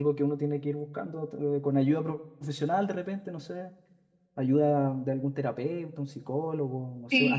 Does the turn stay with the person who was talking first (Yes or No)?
No